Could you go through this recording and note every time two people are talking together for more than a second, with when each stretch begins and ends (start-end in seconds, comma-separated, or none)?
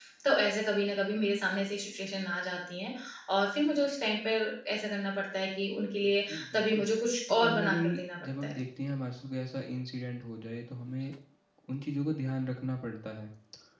7.3-8.5